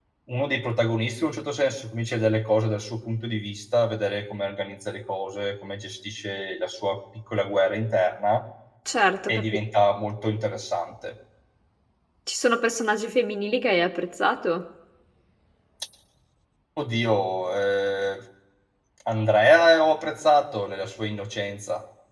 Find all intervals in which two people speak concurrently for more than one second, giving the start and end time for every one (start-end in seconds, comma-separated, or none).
none